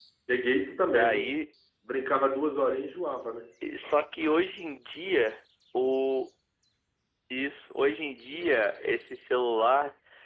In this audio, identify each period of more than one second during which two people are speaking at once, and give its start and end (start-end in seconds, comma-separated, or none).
none